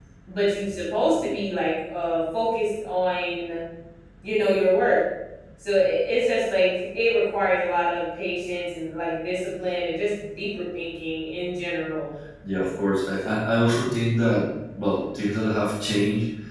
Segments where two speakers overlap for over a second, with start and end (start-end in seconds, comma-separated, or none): none